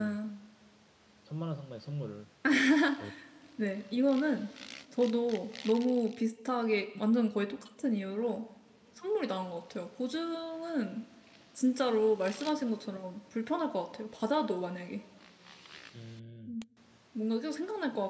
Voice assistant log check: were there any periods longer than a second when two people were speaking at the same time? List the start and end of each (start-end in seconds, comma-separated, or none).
none